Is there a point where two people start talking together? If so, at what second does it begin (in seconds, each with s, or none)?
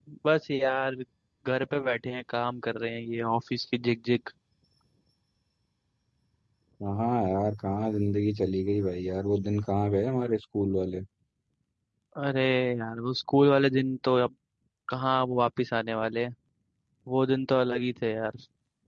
none